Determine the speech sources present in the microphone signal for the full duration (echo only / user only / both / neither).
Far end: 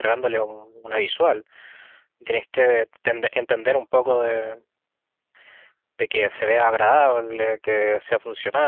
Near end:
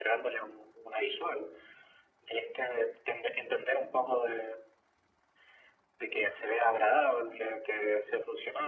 echo only